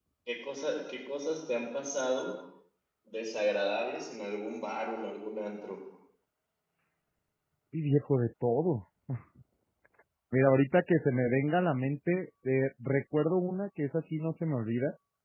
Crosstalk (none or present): none